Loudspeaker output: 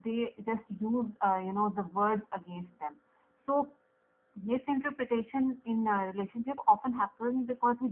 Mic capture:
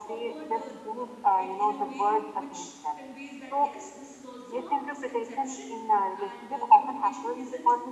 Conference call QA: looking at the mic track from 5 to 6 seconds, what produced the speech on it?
both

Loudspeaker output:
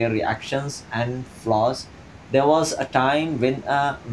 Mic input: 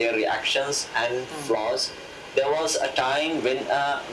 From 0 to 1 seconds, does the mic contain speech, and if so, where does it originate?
echo only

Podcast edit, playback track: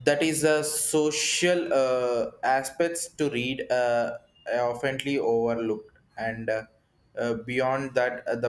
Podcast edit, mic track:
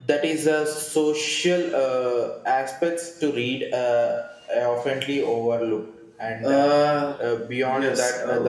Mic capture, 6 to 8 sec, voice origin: both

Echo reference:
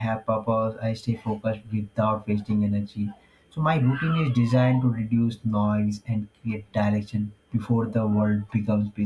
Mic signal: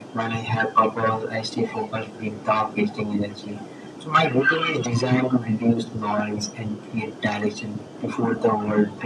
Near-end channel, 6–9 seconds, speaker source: echo only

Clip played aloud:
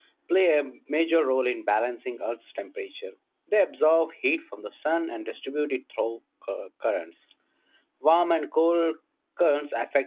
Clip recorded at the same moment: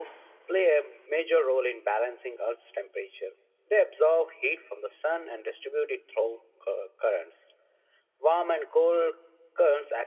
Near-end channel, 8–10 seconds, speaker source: echo only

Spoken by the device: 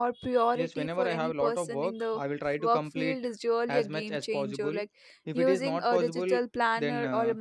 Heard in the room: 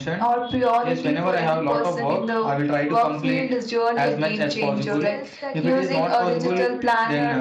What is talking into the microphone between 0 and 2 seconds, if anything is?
echo only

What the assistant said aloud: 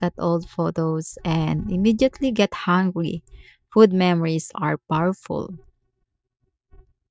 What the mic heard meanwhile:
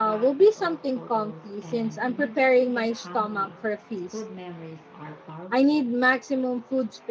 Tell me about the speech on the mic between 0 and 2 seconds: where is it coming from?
both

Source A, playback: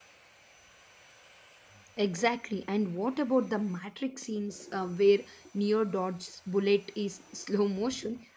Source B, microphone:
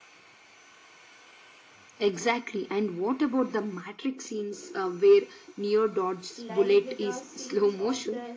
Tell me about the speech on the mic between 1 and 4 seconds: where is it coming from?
echo only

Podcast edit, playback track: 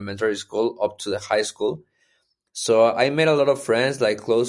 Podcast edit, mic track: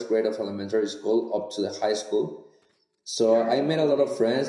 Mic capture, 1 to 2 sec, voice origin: echo only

